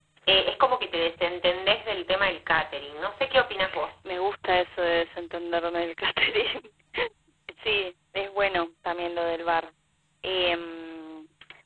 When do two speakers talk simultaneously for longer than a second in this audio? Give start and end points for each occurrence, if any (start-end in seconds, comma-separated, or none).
none